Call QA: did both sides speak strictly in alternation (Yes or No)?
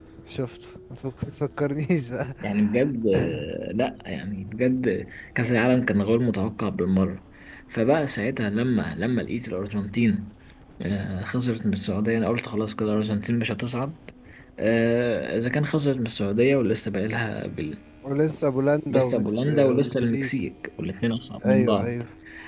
No